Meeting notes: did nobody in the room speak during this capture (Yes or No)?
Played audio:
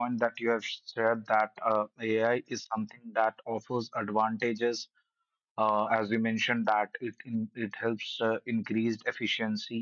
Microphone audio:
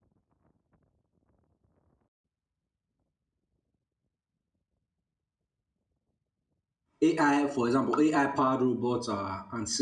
No